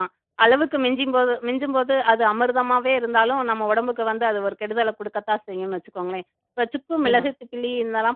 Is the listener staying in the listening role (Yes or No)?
Yes